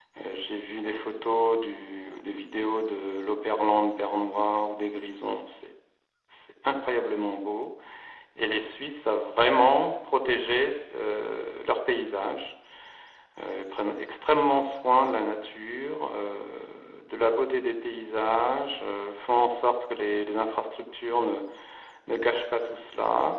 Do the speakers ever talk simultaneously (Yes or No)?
No